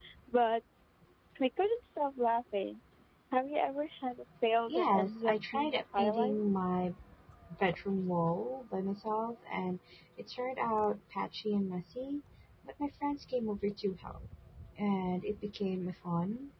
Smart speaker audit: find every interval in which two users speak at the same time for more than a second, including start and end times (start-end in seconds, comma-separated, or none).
4.7-6.4